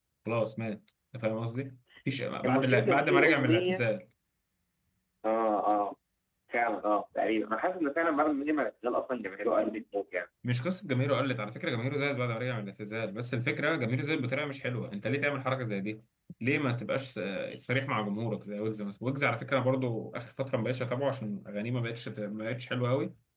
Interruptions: present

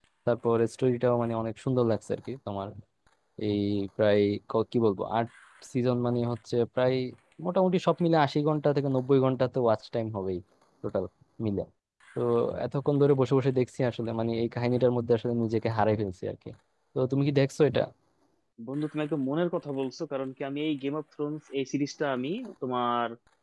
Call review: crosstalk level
none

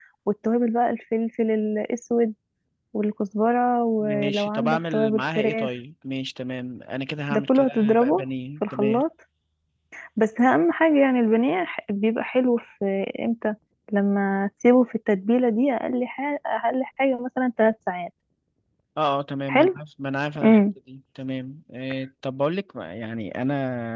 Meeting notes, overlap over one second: present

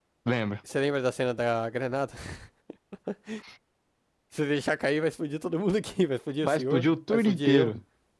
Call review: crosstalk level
present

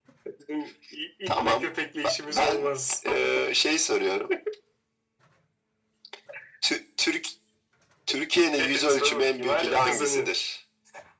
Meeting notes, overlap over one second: present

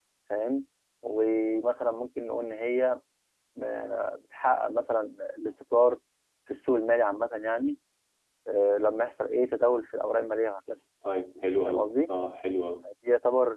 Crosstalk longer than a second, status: none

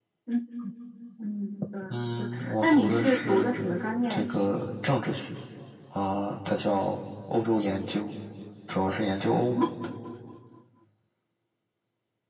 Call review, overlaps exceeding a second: present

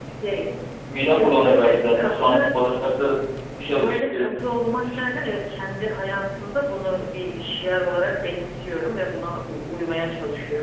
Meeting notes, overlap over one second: present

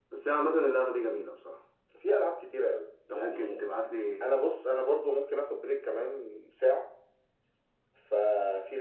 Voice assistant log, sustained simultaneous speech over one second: none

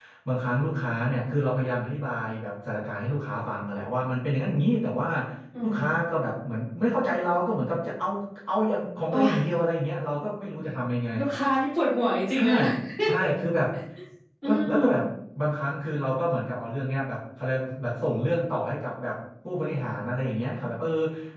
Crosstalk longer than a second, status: none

